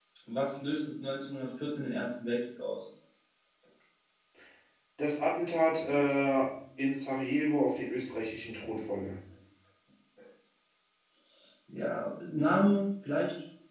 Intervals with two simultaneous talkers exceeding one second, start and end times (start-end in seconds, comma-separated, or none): none